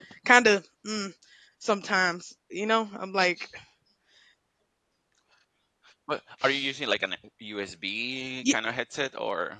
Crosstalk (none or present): none